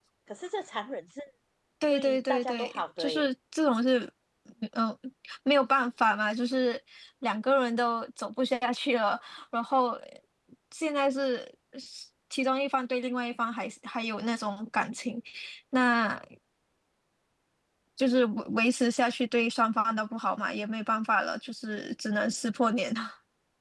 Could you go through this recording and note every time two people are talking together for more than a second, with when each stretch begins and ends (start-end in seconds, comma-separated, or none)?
1.9-3.3